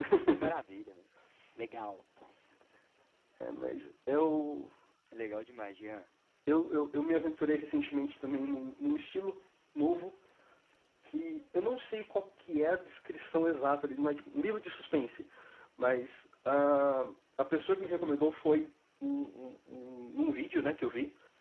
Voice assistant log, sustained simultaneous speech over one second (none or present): none